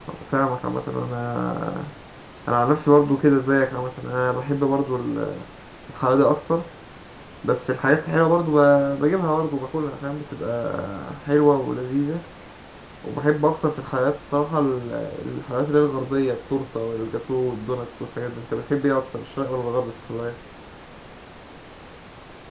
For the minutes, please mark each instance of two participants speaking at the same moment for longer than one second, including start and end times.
none

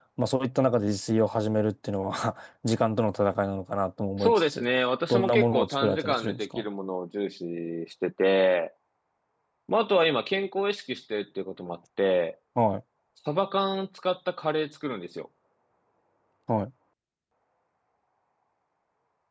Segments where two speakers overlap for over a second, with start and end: 5.1-6.6

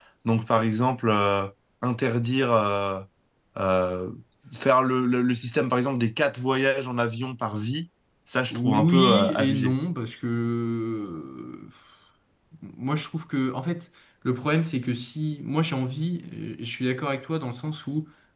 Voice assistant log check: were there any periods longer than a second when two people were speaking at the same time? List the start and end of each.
8.5-9.7

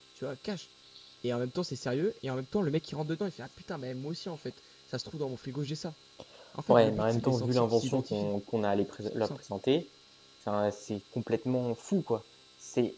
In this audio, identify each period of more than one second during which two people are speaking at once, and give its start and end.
6.7-8.3

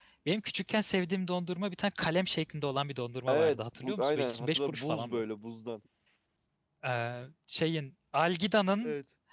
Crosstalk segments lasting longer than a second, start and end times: 3.3-5.2

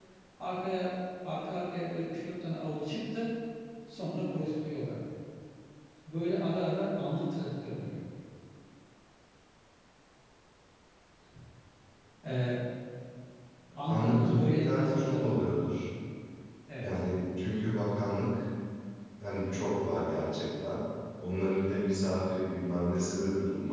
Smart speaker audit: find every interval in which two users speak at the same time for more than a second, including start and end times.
13.8-15.5

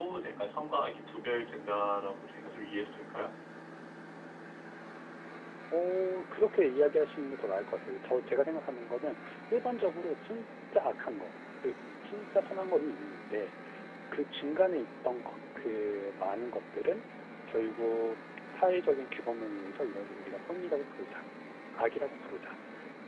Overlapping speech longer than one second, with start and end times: none

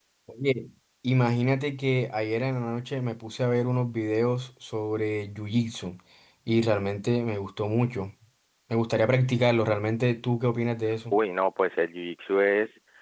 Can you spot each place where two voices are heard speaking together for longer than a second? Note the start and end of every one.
none

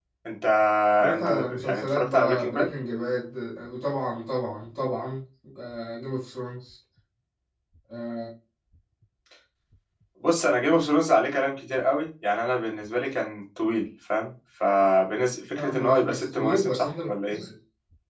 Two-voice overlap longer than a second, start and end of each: 1.1-2.7, 15.6-17.4

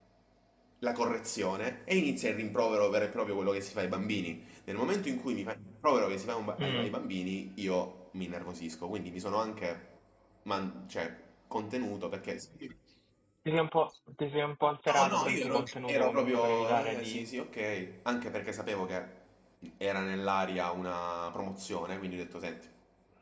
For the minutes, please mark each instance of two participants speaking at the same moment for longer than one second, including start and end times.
15.0-17.2

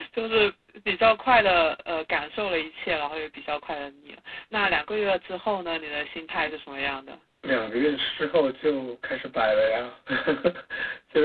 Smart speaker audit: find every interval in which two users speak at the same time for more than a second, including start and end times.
none

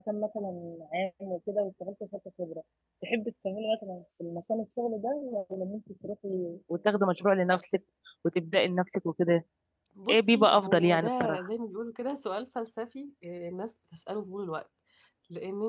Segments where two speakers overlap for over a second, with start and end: 10.1-11.5

